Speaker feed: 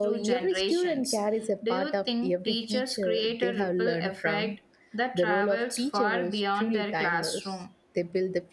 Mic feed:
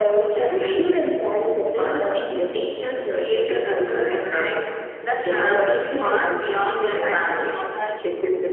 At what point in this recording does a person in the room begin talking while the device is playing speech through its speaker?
5.2 s

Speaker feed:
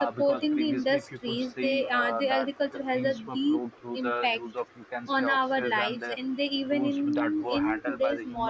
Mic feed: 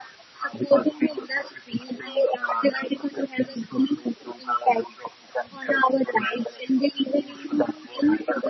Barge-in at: none

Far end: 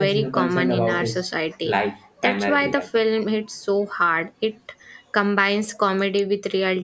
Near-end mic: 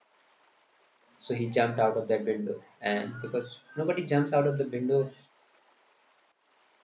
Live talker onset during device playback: 1.2 s

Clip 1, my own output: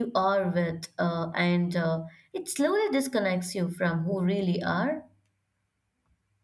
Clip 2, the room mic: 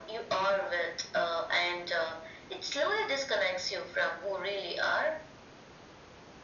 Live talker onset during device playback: none

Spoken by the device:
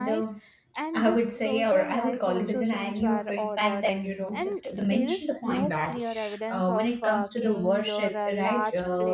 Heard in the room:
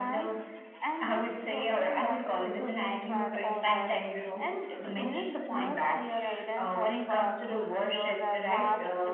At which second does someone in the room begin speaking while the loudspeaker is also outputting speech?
none

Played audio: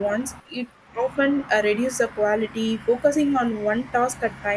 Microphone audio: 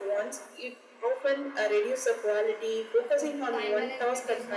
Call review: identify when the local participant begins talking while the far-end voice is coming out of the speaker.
3.1 s

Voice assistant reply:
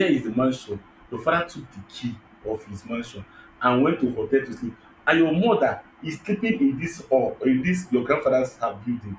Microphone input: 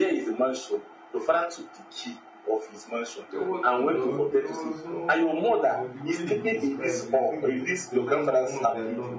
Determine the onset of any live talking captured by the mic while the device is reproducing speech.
3.3 s

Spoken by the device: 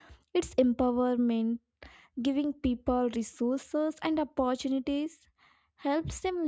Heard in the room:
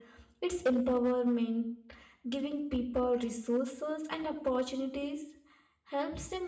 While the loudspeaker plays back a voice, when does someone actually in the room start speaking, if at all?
none

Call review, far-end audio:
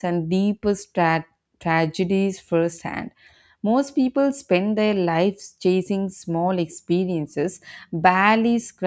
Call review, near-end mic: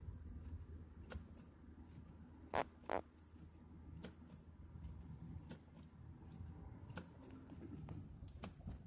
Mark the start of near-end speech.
none

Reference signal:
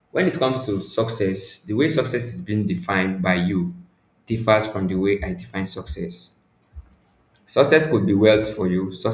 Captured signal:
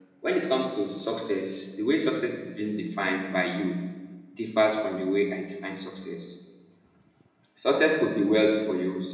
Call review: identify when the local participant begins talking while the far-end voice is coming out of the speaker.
none

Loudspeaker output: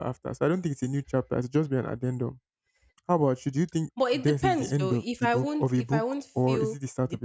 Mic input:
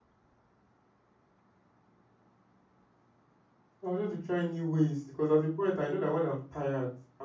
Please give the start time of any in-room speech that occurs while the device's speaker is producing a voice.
3.8 s

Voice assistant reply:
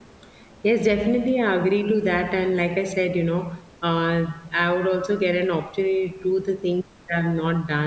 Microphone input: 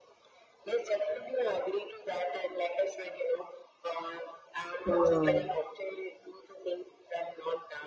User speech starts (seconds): 4.8 s

